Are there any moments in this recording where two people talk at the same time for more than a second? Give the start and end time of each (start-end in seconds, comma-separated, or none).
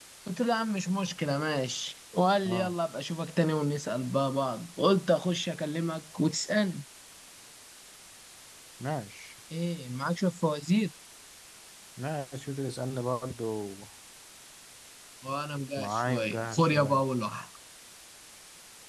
15.8-17.0